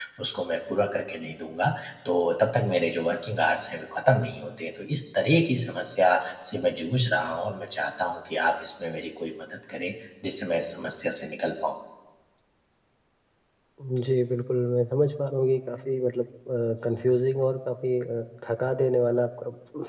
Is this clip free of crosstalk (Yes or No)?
Yes